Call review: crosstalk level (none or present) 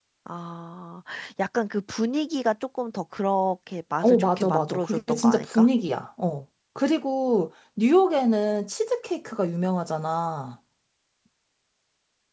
present